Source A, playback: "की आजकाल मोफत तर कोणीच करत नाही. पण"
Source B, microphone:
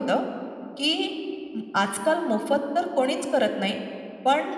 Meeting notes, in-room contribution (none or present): none